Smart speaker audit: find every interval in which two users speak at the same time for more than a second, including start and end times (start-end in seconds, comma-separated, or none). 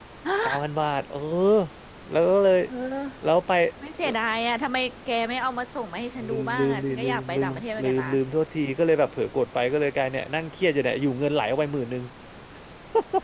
6.3-8.1